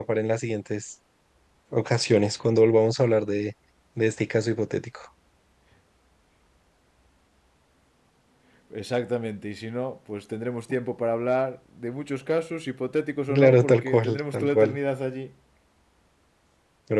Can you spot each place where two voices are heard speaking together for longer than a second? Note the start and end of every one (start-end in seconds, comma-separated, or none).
13.3-14.8